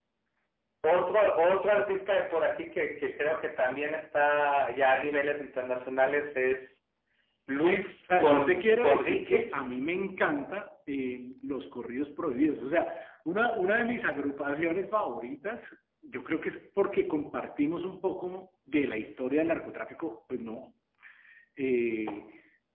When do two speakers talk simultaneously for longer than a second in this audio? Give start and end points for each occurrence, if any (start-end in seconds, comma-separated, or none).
8.2-9.7